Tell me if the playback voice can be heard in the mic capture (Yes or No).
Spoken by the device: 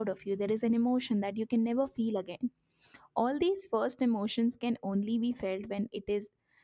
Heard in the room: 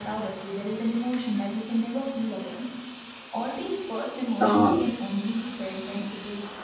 Yes